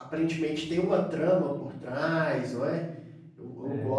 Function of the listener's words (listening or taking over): listening